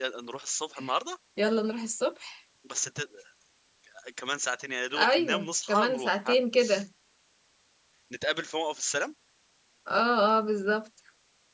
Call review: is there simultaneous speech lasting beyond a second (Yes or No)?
Yes